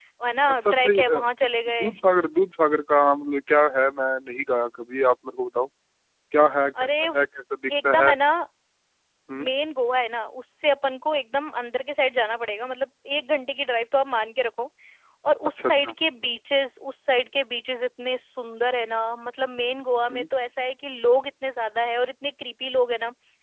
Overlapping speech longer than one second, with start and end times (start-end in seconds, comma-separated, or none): 0.5-1.9